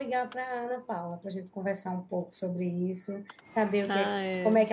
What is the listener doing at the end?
listening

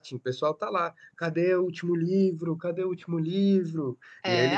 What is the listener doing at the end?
taking over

